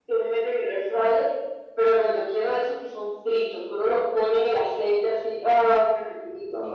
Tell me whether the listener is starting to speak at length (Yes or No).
Yes